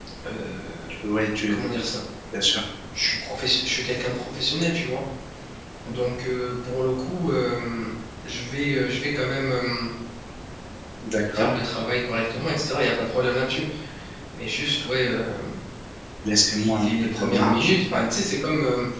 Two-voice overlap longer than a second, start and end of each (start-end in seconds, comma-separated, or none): 16.6-18.1